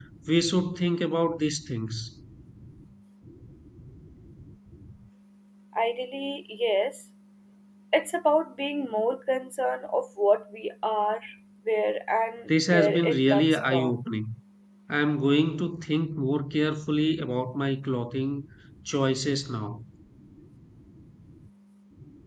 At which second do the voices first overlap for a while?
12.5 s

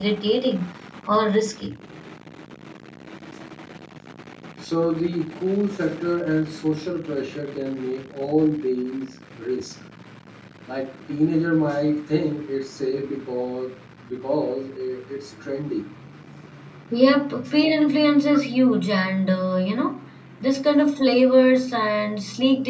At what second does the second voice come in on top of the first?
none

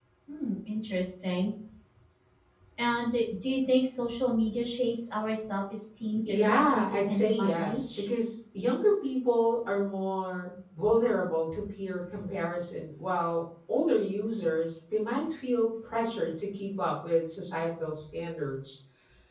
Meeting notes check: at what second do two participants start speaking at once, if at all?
6.3 s

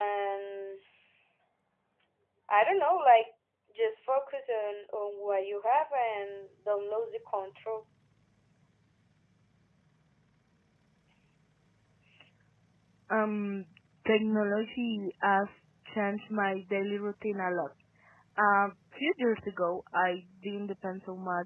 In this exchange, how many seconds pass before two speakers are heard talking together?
none

